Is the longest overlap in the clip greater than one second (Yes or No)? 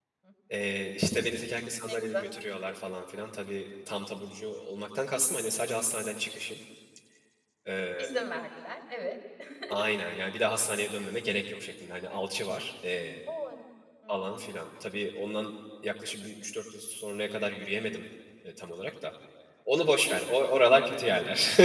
No